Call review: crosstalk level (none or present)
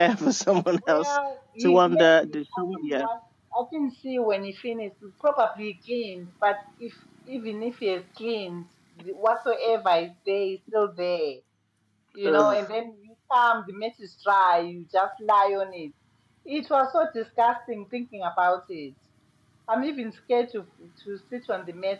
present